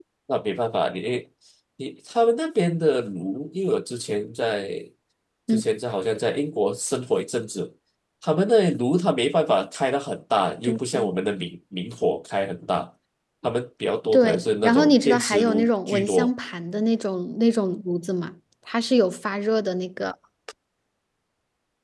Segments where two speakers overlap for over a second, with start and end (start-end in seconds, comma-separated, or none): 14.1-16.3